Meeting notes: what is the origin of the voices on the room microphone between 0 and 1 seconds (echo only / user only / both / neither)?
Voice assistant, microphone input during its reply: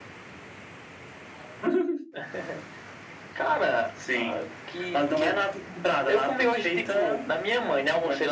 neither